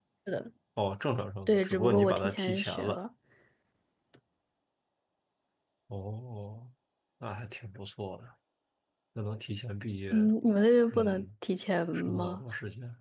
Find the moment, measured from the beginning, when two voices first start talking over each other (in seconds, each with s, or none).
1.5 s